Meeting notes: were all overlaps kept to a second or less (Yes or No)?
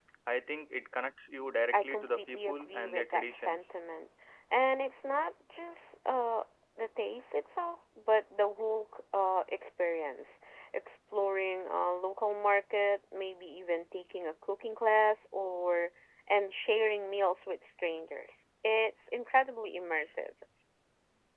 No